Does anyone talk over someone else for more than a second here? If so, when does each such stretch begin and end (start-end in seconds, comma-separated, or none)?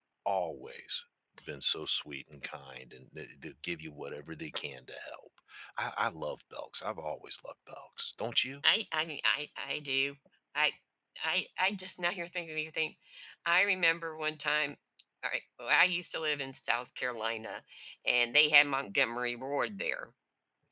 none